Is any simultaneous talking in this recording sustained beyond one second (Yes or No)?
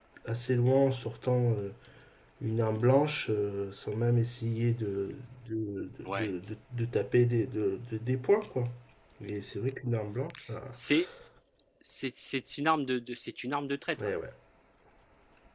No